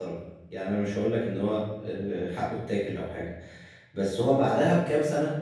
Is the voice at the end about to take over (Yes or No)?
No